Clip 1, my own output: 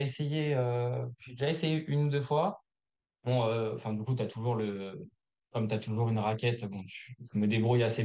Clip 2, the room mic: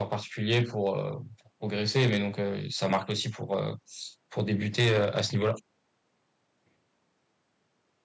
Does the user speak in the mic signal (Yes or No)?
Yes